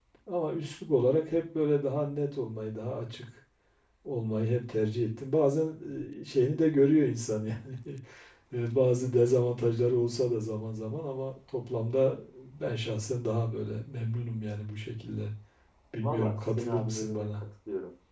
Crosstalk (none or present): present